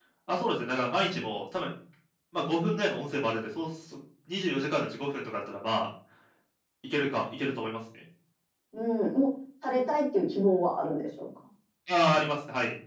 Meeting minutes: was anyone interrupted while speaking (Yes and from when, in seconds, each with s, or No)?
No